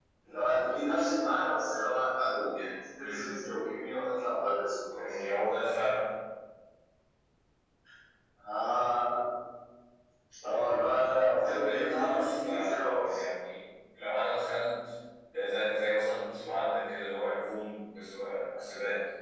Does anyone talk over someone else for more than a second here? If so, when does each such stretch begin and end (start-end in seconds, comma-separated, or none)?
11.3-13.2